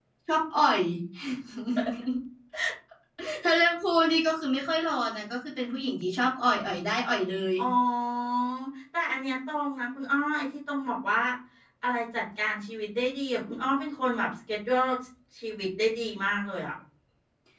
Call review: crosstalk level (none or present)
none